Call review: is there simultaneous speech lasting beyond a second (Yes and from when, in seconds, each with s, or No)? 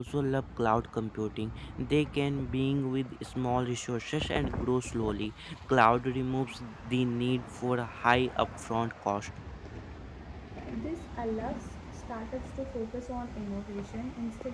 No